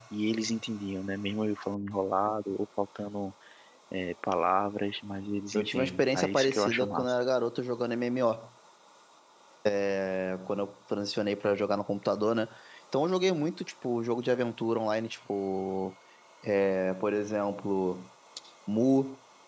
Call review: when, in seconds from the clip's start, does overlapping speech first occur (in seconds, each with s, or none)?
5.5 s